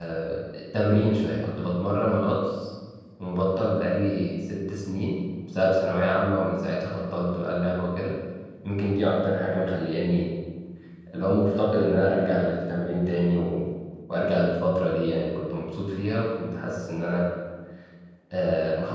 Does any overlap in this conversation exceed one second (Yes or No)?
No